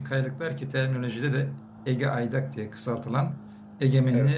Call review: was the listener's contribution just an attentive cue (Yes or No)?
Yes